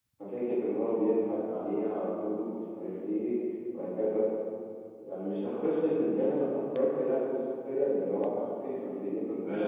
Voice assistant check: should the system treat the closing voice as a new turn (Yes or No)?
Yes